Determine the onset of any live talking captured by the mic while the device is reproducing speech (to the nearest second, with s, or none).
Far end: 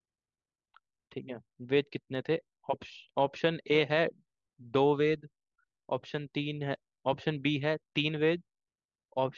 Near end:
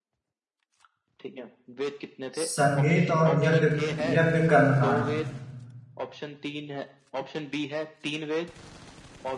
2 s